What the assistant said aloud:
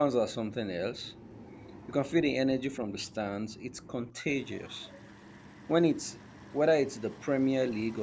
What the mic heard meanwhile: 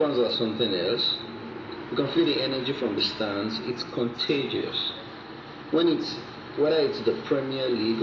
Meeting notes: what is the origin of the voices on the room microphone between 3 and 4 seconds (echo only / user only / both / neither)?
echo only